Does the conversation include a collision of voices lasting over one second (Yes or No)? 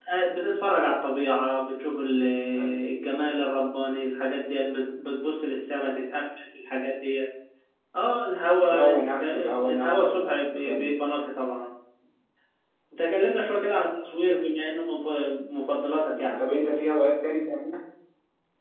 Yes